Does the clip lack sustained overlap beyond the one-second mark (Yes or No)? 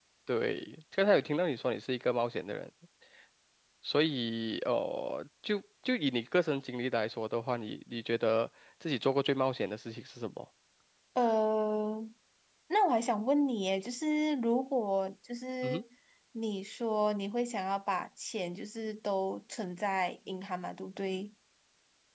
Yes